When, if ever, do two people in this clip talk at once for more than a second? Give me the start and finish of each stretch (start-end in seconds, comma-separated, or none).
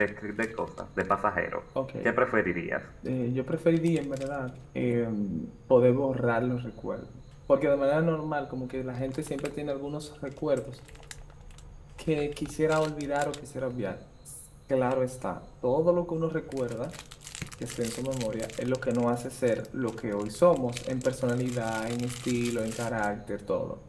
none